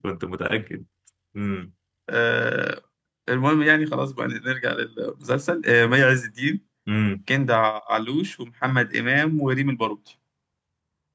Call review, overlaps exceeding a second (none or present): none